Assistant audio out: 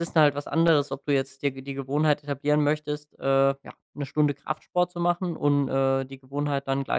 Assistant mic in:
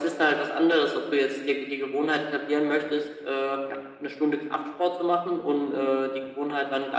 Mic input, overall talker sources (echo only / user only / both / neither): echo only